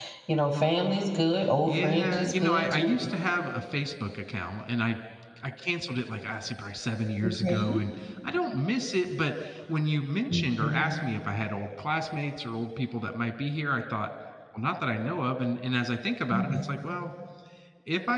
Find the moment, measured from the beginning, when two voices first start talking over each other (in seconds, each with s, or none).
1.6 s